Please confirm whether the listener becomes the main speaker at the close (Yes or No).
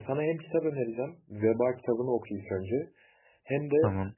No